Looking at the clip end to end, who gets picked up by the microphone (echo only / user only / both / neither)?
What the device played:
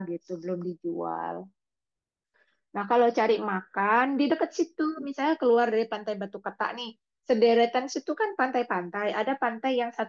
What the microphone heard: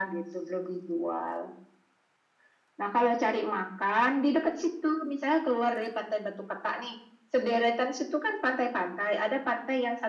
echo only